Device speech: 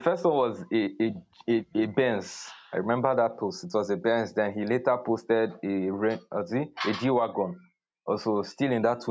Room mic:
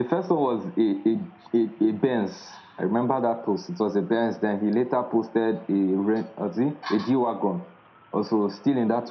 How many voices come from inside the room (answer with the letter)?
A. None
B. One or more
A